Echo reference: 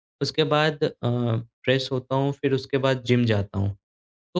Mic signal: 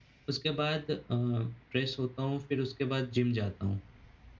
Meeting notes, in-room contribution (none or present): none